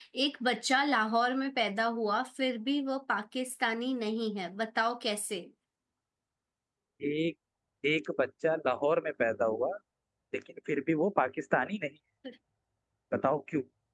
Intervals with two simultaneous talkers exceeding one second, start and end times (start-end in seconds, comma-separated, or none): none